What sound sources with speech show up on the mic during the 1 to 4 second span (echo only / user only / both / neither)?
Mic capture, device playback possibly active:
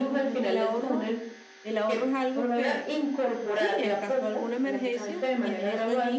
both